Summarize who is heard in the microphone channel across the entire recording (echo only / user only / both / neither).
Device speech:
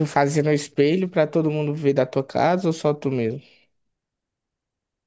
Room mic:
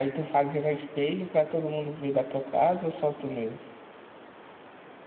echo only